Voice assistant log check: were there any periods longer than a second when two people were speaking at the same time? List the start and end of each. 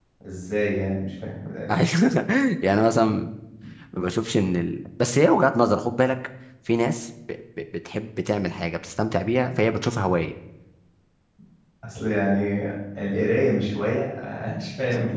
none

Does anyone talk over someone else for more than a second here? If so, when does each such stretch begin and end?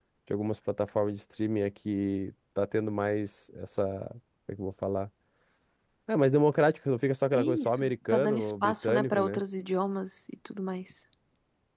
7.4-9.4

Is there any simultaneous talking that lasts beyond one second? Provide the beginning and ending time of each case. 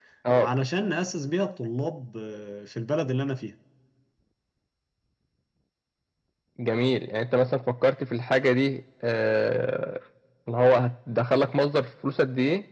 none

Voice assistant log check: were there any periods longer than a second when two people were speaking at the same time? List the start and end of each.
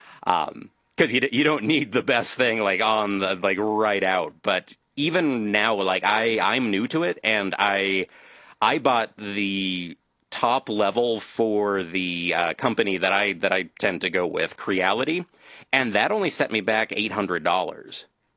none

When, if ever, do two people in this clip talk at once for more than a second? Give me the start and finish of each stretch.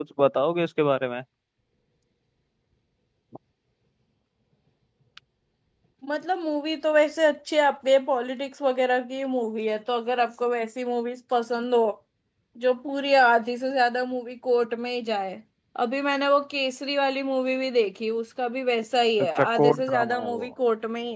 19.2-20.5

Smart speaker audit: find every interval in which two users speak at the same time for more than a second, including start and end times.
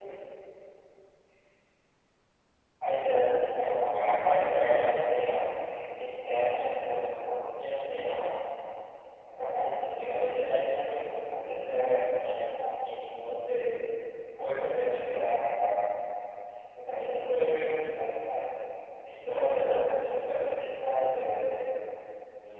3.9-5.3

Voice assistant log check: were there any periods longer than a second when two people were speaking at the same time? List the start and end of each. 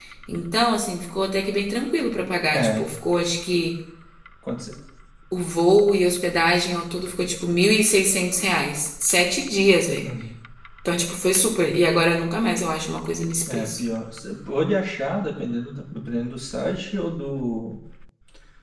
none

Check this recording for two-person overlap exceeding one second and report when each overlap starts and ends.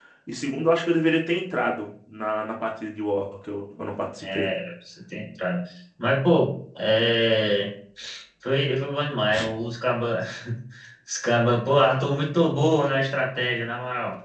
none

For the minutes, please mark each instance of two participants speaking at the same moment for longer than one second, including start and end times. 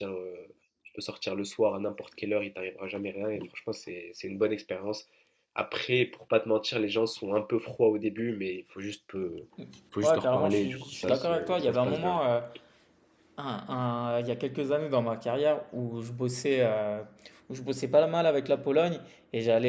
10.0-12.2

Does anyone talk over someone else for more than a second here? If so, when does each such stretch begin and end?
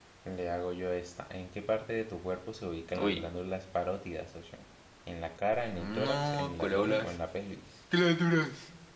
5.7-7.2

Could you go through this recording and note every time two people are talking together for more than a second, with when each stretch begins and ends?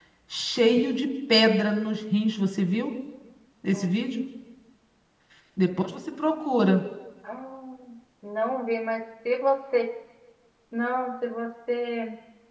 none

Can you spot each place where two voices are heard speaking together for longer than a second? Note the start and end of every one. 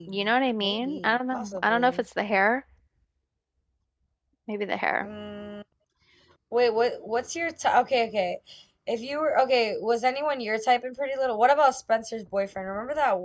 0.6-2.0

